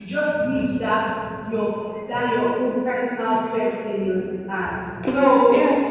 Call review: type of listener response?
listening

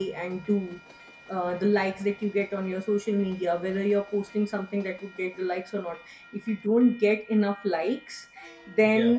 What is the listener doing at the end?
listening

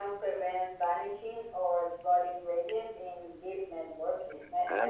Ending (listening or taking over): taking over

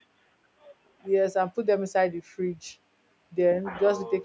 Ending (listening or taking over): listening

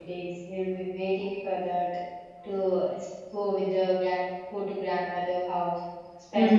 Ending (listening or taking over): listening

